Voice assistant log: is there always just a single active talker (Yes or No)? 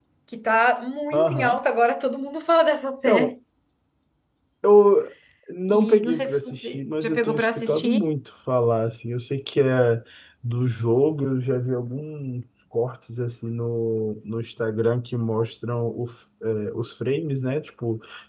No